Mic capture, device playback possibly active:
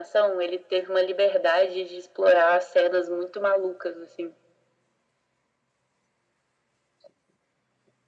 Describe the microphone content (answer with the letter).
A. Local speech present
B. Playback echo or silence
B